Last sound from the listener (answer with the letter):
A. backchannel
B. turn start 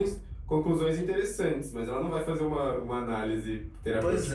B